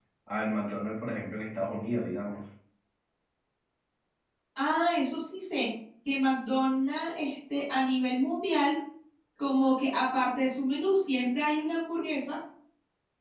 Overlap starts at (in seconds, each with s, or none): none